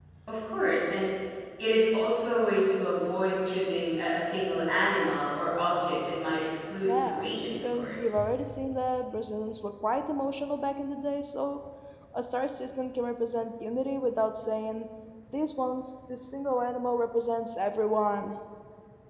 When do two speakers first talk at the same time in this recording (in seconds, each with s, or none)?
6.8 s